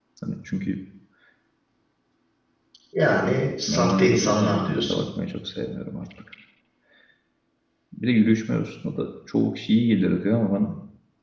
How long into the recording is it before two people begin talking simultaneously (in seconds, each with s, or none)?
3.7 s